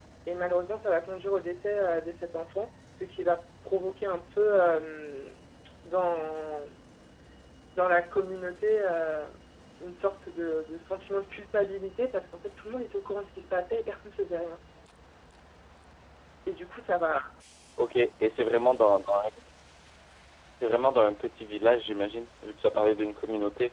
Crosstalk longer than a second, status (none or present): none